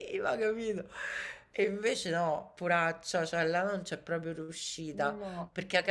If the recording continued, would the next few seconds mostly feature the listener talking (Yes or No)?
No